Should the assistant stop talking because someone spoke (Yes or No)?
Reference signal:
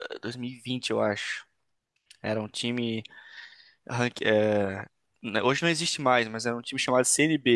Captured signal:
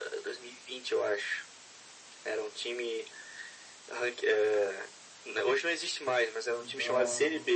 Yes